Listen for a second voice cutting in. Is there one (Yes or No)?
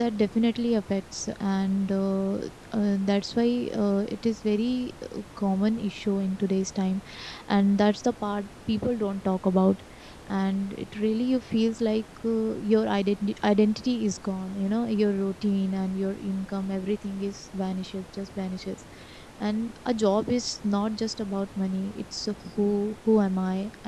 No